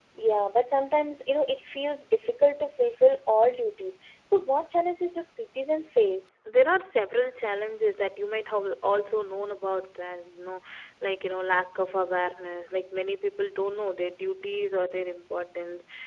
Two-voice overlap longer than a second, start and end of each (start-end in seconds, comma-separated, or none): none